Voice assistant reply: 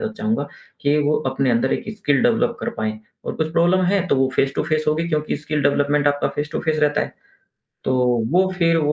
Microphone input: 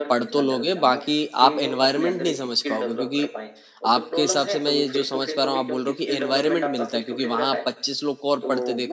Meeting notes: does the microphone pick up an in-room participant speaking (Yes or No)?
Yes